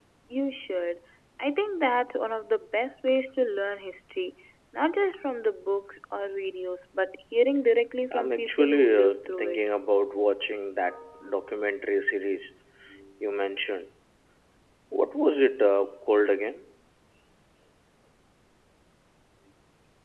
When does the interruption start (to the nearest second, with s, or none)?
8 s